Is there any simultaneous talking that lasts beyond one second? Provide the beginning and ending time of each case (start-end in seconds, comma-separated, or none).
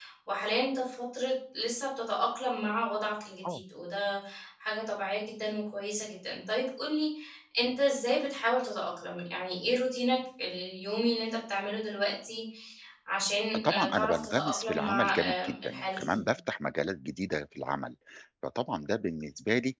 13.6-16.2